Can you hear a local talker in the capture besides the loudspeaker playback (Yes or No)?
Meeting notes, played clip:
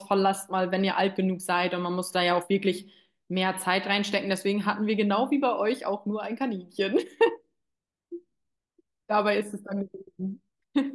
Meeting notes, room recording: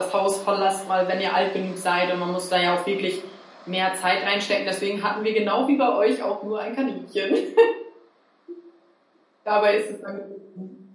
No